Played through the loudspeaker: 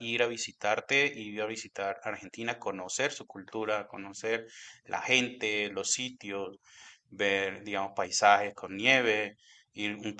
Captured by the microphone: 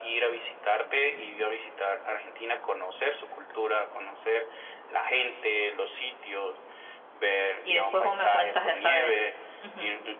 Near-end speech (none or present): present